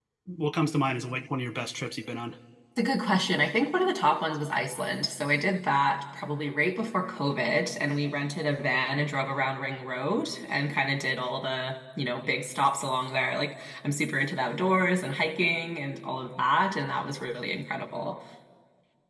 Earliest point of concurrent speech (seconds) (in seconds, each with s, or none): none